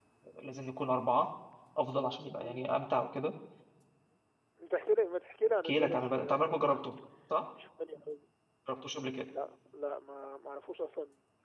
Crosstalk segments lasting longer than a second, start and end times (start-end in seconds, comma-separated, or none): 5.6-6.8